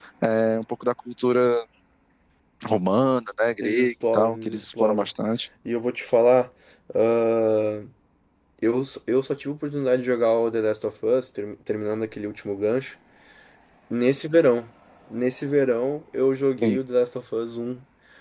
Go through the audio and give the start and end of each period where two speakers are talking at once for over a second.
3.6-5.0

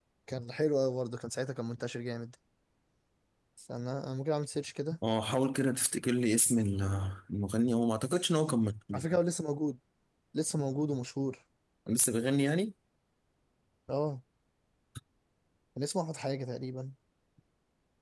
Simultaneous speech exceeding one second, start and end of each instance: none

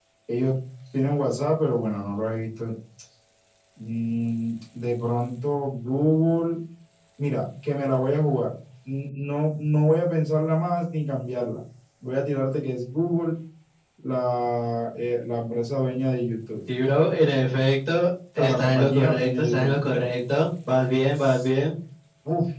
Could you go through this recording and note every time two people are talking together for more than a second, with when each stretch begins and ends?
18.4-19.8

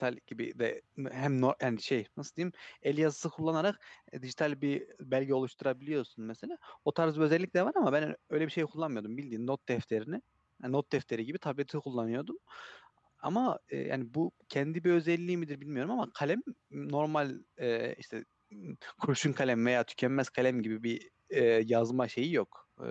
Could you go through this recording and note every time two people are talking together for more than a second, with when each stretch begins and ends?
none

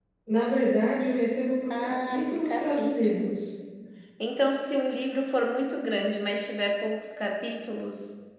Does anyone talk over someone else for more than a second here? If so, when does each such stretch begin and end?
1.7-3.5

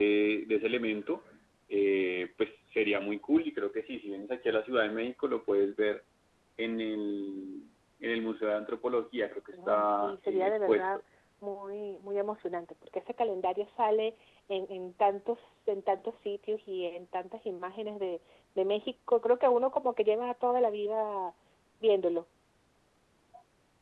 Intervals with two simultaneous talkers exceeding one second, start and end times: 9.7-10.9

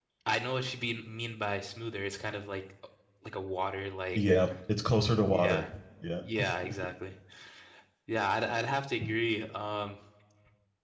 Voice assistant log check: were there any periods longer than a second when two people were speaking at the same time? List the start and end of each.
none

